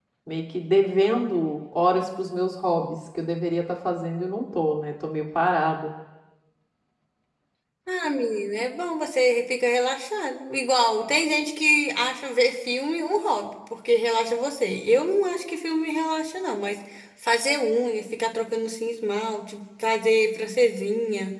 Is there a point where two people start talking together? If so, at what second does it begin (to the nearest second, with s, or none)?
none